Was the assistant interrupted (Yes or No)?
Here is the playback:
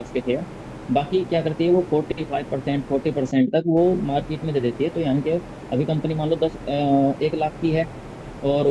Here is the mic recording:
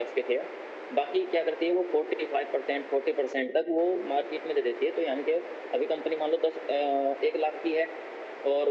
No